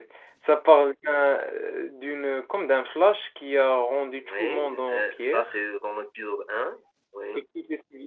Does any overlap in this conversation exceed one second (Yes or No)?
Yes